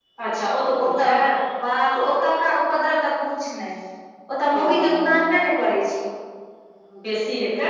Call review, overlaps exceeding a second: none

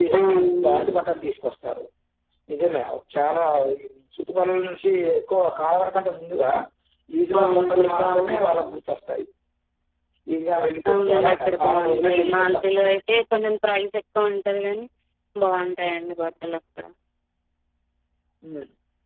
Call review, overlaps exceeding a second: present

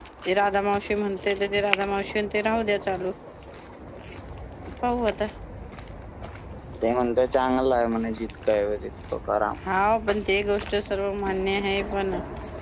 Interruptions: none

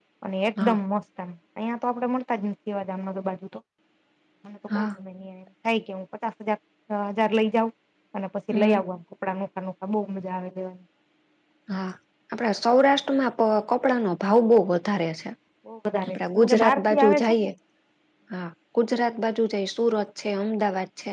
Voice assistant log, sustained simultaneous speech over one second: present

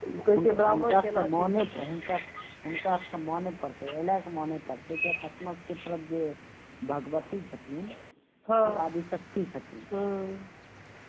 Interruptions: present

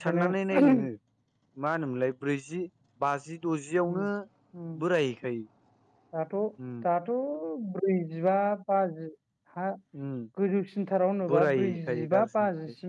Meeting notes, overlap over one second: present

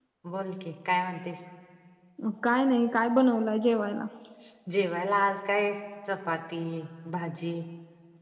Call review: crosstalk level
none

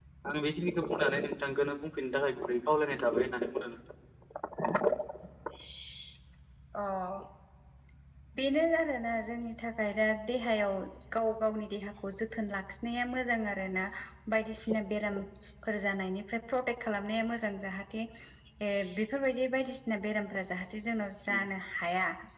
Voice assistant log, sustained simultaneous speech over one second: none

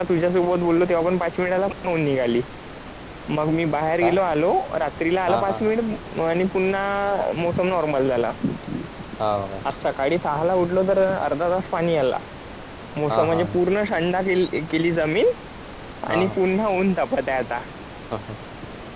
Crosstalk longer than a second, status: none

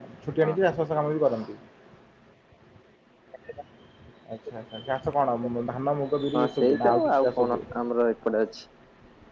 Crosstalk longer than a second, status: present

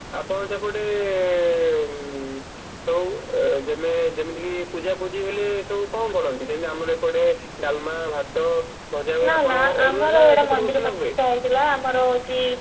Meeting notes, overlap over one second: present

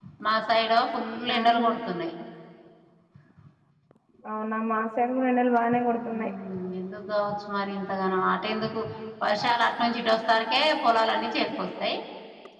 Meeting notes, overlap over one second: none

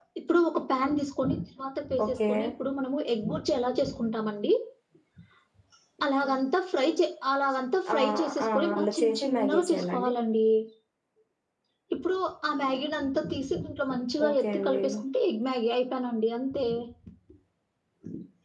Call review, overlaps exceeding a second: present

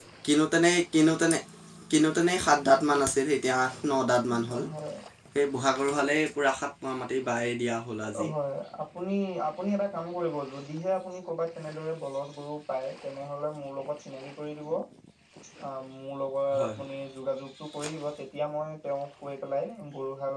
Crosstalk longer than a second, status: none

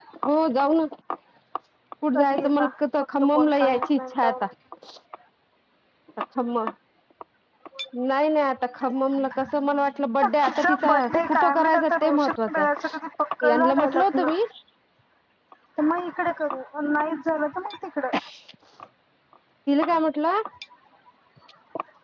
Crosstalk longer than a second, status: present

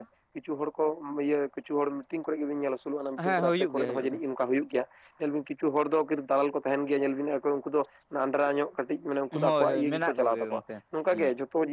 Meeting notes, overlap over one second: present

